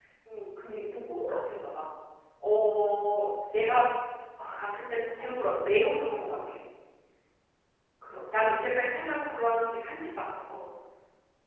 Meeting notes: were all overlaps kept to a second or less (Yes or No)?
Yes